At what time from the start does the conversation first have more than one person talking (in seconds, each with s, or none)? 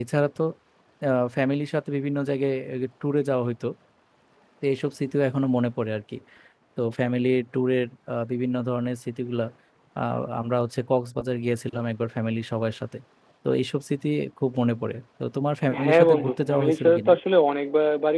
15.7 s